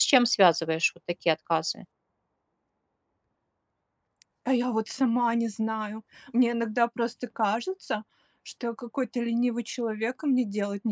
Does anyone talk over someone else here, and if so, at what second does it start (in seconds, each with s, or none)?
none